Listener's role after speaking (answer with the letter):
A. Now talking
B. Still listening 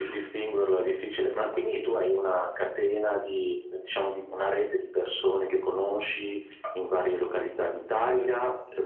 A